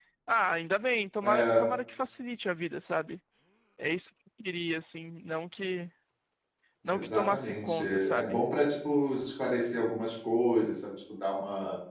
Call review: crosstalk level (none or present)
present